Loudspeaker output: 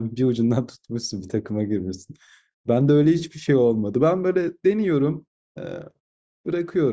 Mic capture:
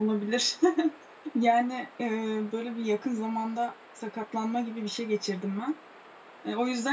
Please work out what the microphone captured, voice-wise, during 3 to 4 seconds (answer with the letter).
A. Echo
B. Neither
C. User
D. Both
C